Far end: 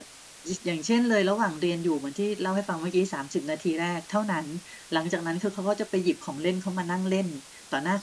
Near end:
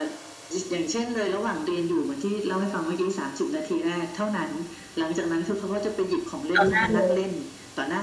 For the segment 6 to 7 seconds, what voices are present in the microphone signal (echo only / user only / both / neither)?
both